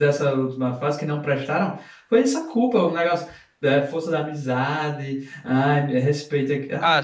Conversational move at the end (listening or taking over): taking over